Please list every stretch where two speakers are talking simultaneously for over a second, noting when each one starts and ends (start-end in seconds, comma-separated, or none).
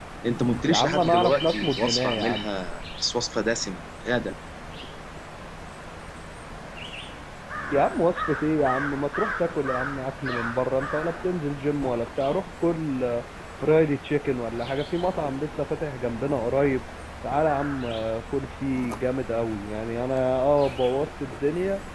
0.6-2.5